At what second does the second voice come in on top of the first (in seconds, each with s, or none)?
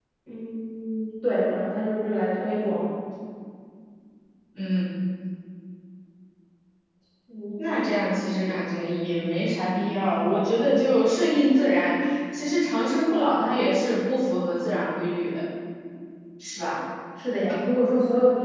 none